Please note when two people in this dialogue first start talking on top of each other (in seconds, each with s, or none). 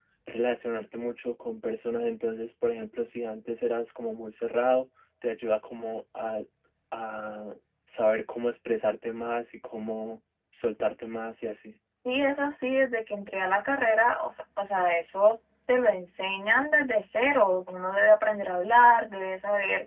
none